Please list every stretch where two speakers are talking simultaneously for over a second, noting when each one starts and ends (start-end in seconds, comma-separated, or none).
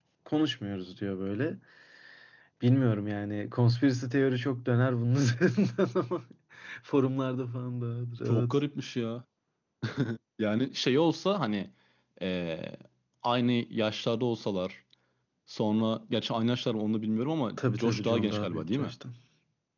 17.6-18.9